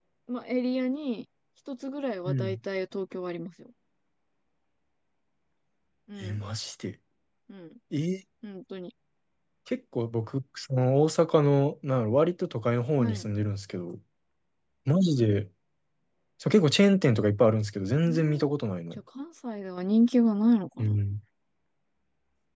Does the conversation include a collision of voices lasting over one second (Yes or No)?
No